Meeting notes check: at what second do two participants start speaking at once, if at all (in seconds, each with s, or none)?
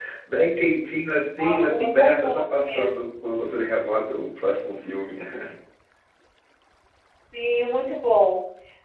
1.4 s